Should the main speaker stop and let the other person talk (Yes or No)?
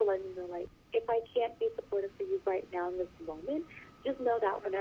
No